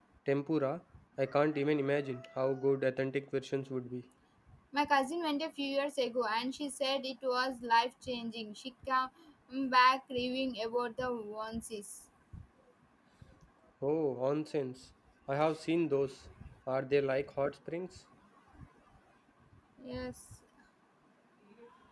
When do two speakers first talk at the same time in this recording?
none

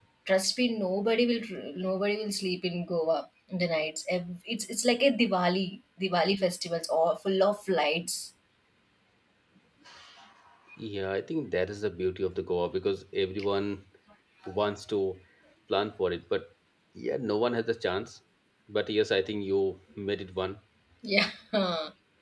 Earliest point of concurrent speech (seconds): none

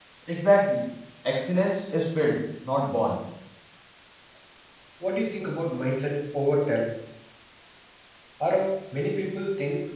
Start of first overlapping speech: none

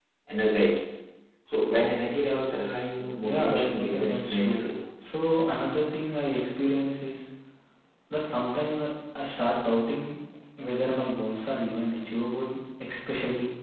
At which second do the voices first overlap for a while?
3.2 s

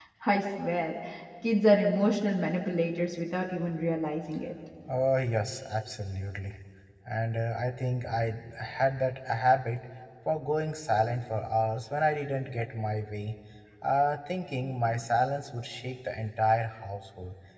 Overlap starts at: none

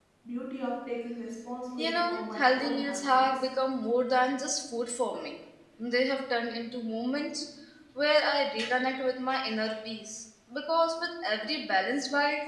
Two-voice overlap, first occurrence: 1.8 s

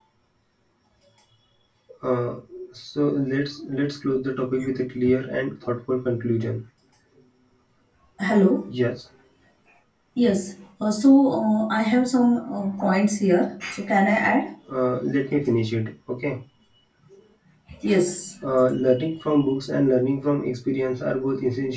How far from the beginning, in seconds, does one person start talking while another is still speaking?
none

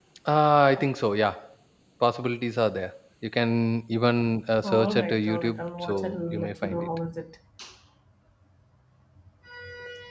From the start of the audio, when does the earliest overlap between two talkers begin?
4.6 s

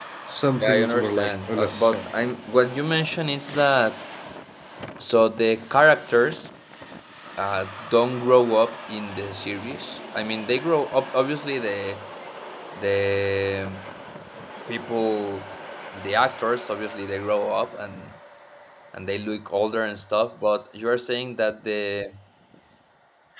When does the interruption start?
0.6 s

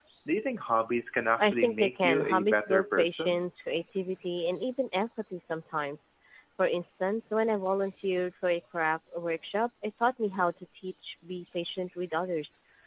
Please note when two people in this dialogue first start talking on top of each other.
1.4 s

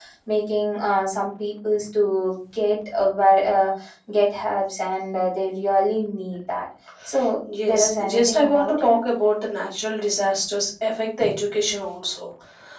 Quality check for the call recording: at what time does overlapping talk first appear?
7.6 s

